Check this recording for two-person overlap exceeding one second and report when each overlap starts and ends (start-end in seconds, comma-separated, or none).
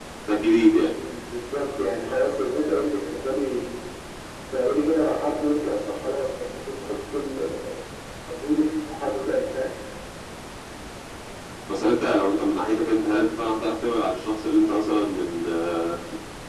none